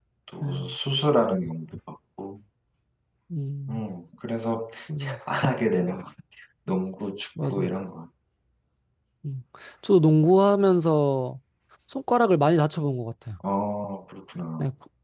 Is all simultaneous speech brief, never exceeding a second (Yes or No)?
Yes